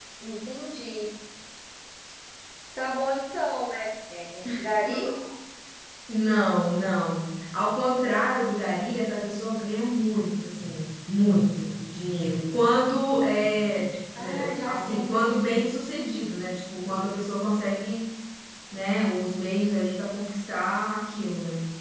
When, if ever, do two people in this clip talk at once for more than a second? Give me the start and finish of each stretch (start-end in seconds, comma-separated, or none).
14.2-15.7